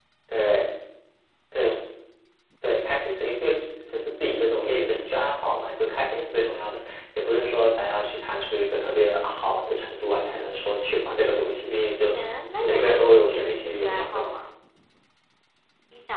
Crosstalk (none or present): present